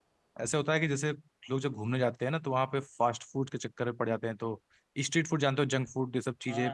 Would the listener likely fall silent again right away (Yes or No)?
No